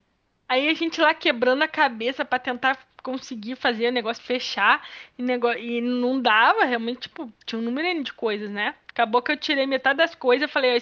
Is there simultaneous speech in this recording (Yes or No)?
No